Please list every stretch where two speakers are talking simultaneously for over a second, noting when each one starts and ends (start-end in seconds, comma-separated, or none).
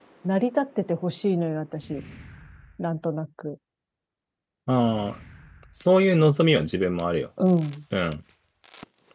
none